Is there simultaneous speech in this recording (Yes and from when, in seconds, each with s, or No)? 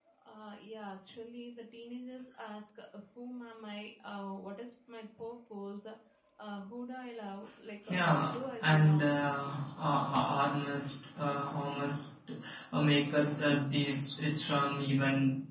Yes, from 7.9 s